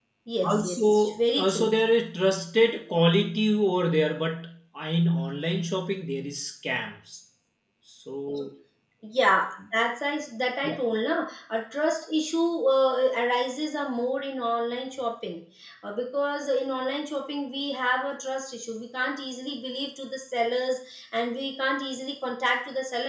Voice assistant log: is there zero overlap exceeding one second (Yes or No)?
No